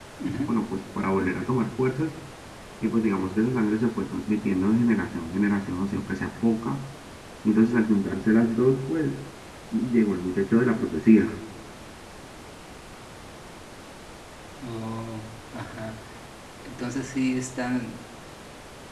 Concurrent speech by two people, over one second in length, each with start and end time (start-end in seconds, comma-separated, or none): none